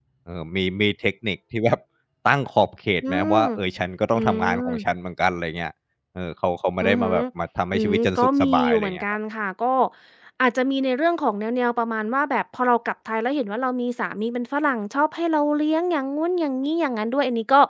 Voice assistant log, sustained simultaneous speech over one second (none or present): present